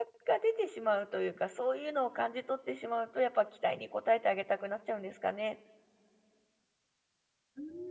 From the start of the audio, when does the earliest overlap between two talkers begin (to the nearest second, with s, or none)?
none